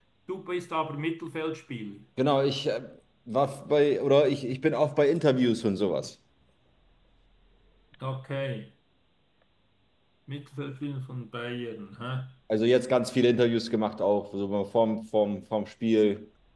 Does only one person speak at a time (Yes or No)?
Yes